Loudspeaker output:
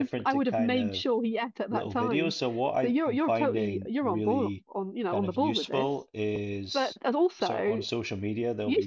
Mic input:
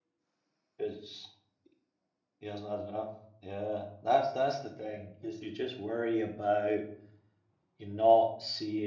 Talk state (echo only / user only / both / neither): user only